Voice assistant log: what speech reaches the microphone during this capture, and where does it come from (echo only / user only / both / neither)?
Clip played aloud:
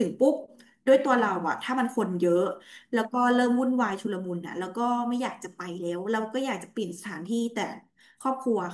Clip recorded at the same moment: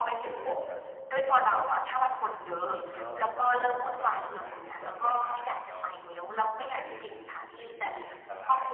both